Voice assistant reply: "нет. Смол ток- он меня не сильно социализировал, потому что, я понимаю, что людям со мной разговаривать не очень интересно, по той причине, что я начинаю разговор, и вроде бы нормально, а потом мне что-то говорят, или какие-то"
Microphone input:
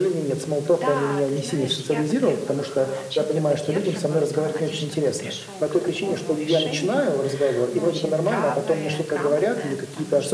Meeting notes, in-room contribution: present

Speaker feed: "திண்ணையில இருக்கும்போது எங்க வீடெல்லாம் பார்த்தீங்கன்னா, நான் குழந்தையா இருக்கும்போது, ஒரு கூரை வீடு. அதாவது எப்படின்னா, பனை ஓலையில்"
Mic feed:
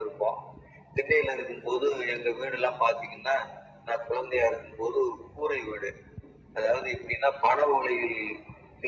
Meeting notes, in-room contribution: none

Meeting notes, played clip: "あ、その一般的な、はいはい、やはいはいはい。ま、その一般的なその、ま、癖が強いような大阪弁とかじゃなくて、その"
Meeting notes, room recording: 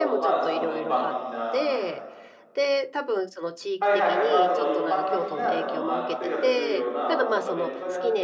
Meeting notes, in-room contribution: present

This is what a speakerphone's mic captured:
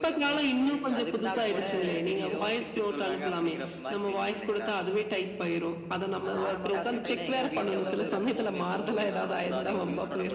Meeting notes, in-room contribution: present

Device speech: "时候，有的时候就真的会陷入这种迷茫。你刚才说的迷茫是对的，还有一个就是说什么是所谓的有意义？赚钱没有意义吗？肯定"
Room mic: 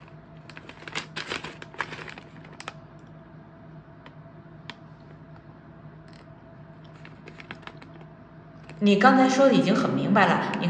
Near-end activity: present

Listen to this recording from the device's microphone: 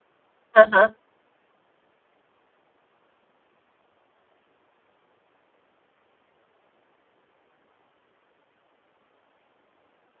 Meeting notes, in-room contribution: present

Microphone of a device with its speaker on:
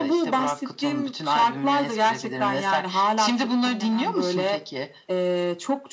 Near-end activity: none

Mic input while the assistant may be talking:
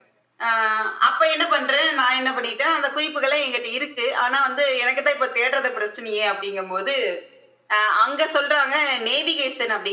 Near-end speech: none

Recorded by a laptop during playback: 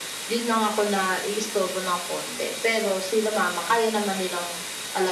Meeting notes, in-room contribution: none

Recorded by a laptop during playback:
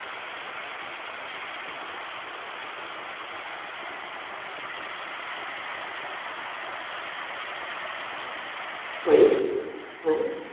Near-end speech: present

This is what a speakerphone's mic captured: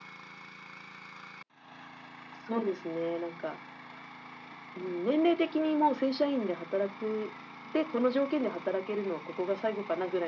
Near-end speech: none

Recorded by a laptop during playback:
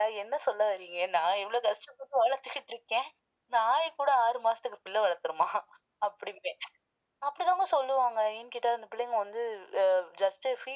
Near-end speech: none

